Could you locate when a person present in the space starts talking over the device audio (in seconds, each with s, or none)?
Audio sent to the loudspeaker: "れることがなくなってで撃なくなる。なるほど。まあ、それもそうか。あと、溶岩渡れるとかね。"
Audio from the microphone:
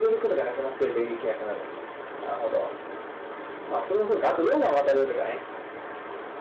none